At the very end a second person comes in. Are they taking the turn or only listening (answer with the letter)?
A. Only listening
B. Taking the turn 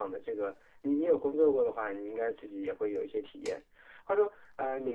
A